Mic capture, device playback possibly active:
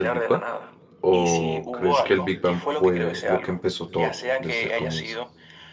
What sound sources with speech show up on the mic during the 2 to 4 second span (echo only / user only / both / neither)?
both